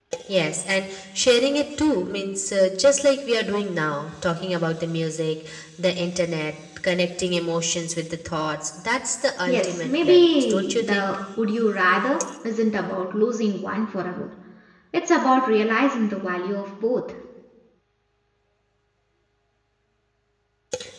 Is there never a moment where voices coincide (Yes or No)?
No